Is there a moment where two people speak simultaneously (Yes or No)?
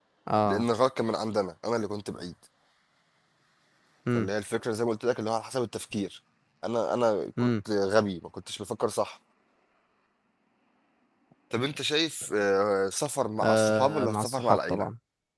Yes